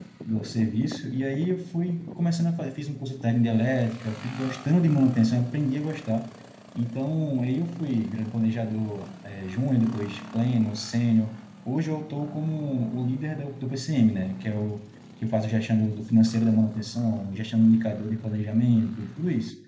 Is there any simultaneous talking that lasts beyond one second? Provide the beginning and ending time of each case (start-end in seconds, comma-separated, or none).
none